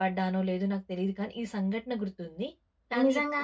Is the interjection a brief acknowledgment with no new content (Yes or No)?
No